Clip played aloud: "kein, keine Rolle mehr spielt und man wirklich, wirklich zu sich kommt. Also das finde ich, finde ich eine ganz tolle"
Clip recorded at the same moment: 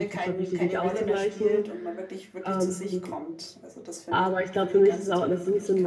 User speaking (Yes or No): Yes